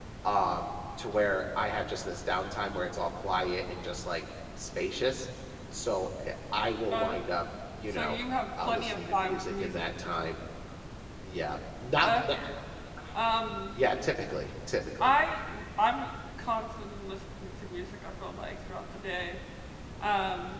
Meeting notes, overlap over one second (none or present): present